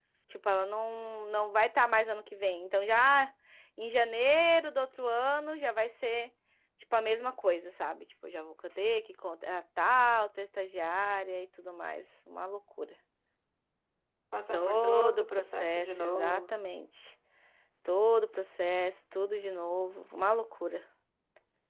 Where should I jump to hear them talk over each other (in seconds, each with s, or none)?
14.5 s